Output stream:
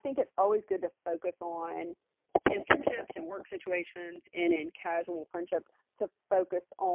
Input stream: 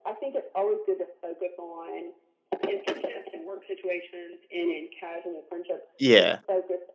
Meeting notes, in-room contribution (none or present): present